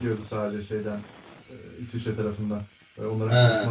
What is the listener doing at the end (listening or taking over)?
listening